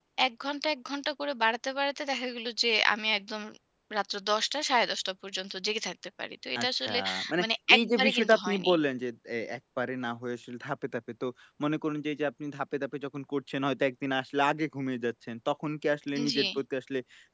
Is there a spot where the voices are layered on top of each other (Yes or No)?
Yes